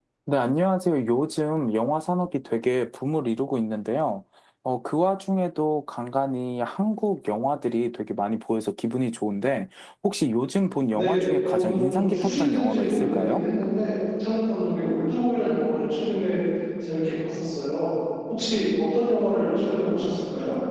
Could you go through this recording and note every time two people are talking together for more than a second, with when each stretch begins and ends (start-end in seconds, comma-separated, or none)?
10.9-13.4